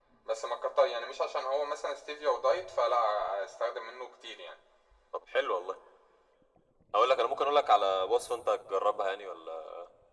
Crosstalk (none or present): none